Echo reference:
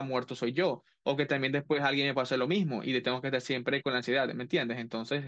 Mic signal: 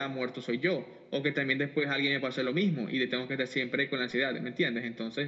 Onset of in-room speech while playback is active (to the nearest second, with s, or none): none